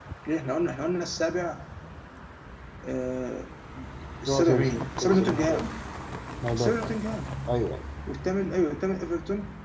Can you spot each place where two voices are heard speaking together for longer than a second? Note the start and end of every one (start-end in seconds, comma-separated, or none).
4.3-5.6